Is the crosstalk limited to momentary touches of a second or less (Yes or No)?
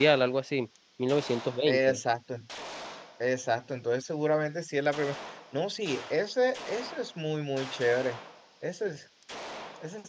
Yes